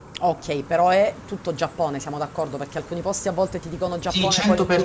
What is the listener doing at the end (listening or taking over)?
taking over